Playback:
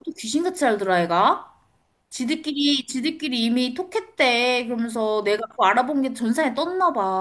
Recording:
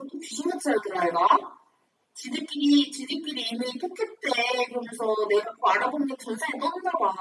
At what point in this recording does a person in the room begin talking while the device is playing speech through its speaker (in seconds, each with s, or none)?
none